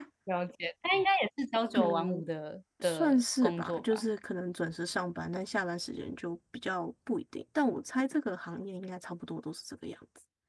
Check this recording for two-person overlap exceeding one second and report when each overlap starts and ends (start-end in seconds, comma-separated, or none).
2.8-4.0